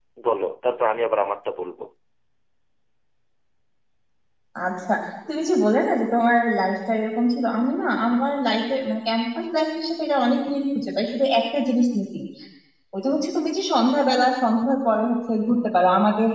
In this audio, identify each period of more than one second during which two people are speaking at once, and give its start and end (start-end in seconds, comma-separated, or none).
none